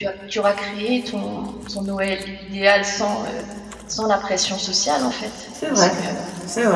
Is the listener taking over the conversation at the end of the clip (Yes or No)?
Yes